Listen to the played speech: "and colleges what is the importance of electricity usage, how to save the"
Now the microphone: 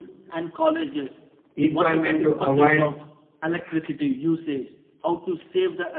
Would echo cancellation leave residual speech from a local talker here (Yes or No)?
Yes